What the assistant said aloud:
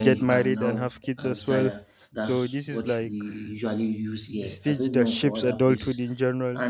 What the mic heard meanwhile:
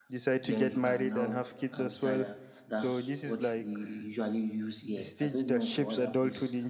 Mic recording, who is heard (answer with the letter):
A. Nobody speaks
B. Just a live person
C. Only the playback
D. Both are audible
C